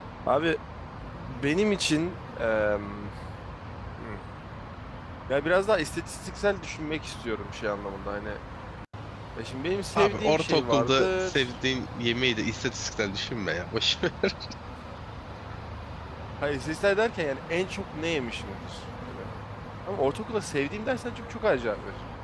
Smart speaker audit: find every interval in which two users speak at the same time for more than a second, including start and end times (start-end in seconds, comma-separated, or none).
10.0-11.6